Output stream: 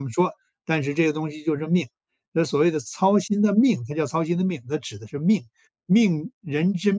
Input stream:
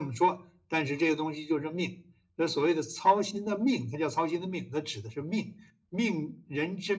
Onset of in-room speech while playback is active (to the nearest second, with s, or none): none